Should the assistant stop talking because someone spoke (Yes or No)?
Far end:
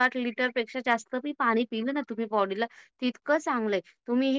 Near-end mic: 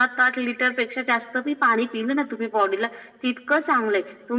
No